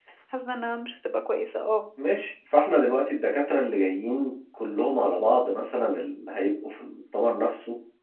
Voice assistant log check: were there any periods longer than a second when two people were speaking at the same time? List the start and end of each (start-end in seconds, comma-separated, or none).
none